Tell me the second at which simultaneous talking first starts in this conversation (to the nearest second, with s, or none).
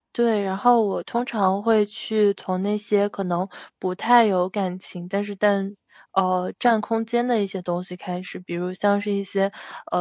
none